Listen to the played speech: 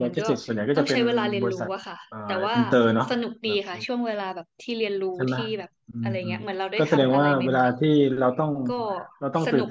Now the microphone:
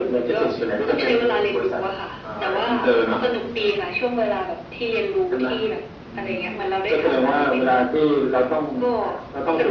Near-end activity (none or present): none